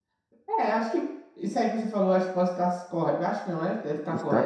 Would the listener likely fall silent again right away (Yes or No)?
Yes